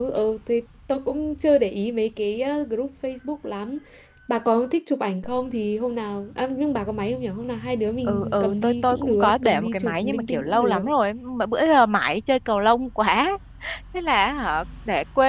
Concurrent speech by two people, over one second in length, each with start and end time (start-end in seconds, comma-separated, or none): 8.1-10.9